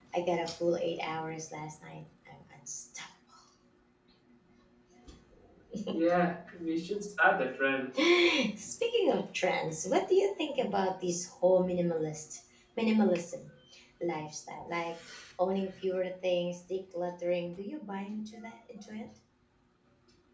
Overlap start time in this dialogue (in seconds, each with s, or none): none